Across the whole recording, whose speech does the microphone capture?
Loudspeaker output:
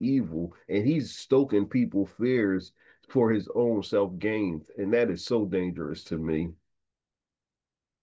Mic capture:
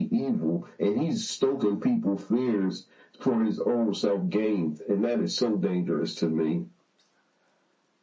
echo only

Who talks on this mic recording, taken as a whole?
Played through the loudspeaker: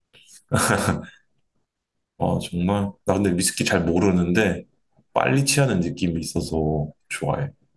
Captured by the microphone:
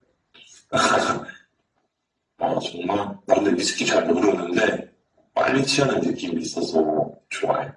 echo only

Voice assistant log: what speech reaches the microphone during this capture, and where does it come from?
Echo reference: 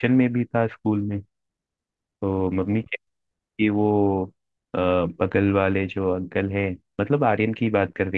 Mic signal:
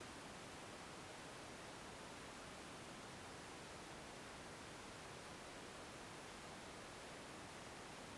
neither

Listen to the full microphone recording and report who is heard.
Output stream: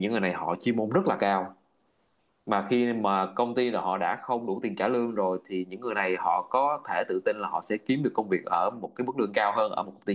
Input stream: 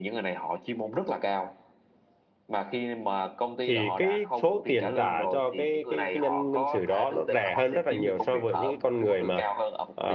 both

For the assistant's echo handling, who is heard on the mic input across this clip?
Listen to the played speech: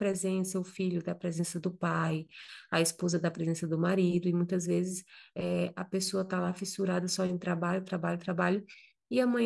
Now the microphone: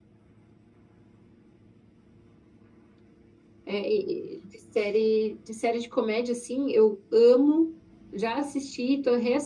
user only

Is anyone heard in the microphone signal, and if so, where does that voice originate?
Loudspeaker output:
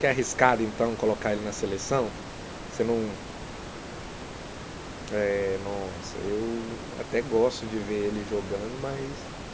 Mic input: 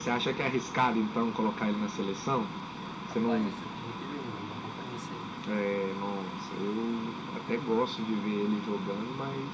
both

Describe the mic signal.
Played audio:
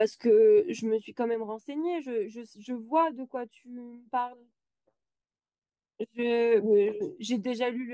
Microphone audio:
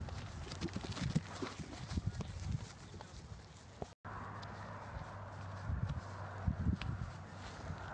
neither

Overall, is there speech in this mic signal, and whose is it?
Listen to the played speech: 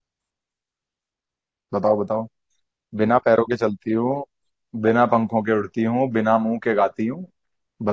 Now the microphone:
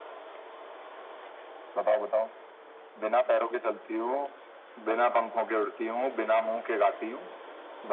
echo only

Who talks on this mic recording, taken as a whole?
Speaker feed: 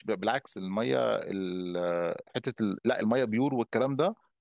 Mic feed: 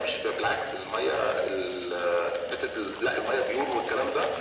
echo only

